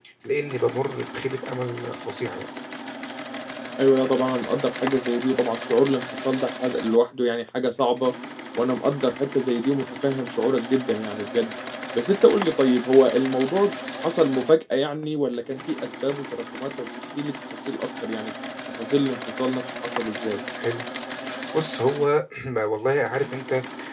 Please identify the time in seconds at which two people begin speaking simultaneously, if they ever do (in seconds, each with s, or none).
none